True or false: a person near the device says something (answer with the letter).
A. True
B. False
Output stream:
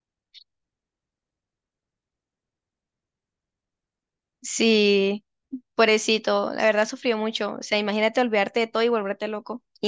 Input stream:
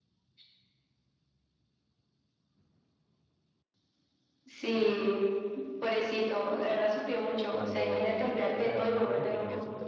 A